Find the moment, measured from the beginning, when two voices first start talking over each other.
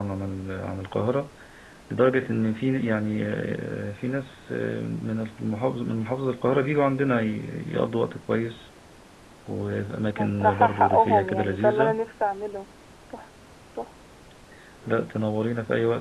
10.2 s

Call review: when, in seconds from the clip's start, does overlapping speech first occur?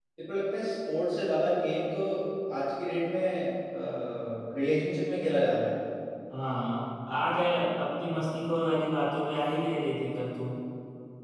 none

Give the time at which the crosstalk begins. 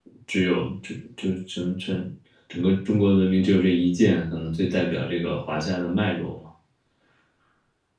none

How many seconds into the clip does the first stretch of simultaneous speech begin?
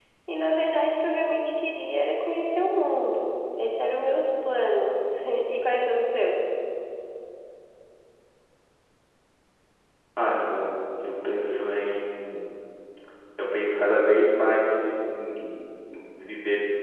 none

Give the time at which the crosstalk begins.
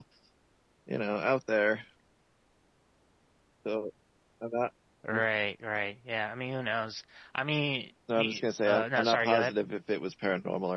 8.1 s

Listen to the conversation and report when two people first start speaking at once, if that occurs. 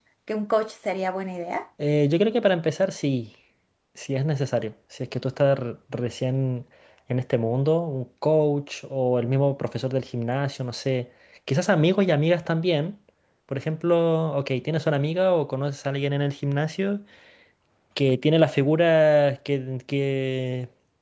none

